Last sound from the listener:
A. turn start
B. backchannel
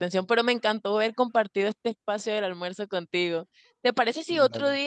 B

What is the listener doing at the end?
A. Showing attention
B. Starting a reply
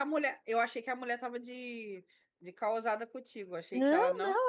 B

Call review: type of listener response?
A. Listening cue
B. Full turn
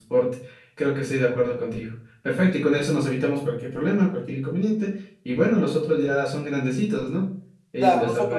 B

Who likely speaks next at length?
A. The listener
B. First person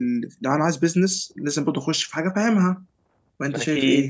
A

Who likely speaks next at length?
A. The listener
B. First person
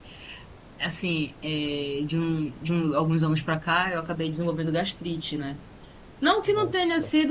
B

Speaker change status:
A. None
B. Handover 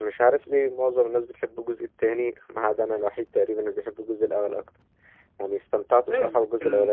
B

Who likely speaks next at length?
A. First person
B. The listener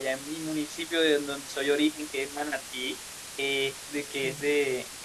A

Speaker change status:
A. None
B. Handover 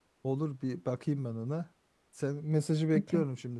A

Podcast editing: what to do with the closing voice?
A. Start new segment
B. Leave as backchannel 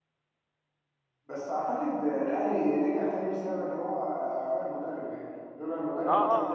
A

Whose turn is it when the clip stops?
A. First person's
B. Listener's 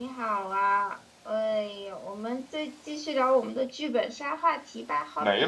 B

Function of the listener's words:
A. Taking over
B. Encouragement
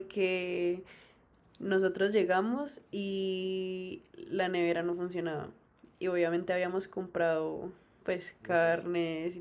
B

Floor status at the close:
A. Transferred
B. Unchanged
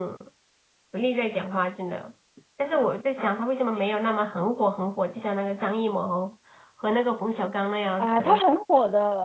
A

